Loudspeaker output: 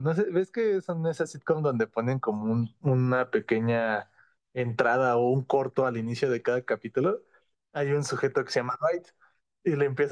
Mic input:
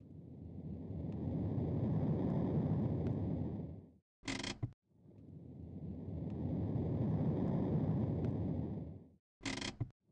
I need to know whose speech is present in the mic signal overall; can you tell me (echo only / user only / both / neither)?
neither